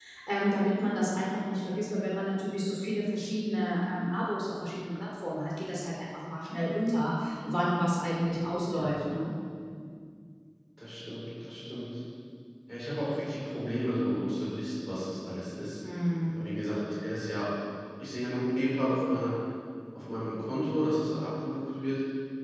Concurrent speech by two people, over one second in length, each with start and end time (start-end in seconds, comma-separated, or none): none